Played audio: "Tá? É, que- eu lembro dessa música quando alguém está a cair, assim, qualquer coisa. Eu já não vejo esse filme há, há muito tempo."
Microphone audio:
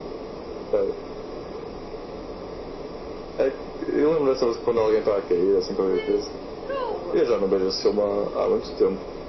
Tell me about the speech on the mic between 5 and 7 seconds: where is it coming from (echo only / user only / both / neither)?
both